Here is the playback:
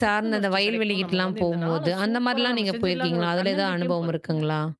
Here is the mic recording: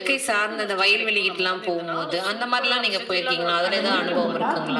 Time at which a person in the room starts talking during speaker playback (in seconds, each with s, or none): 3.7 s